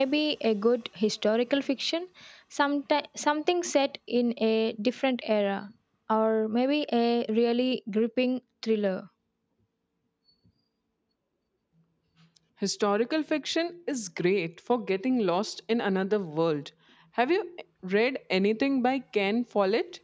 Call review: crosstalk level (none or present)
none